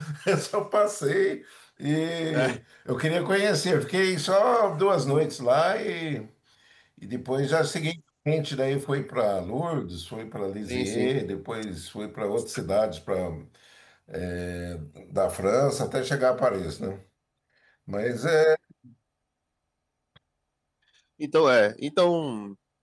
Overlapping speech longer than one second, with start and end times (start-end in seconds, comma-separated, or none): none